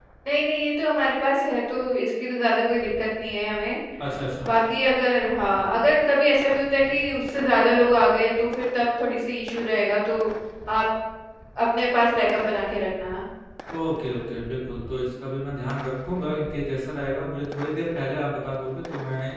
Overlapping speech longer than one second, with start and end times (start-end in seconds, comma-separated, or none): none